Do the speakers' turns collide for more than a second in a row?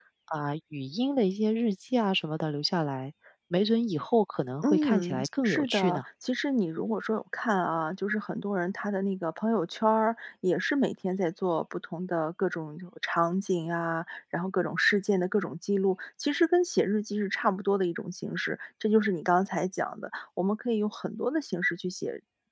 Yes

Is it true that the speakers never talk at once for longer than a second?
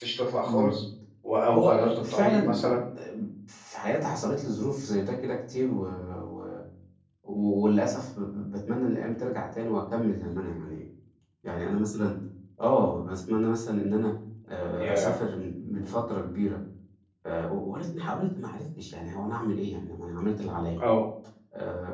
No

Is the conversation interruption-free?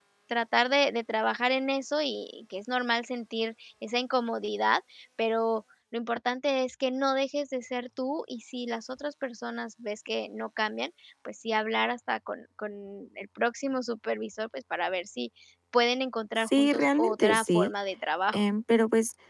No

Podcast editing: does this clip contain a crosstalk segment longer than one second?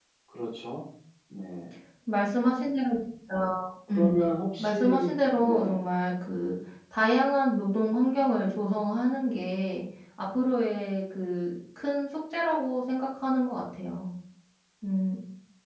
Yes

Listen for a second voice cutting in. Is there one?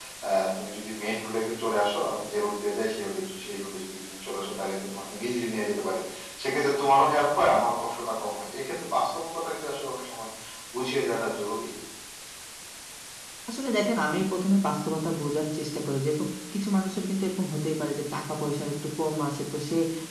No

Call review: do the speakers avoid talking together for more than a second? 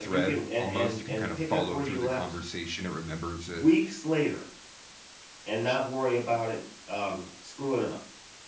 No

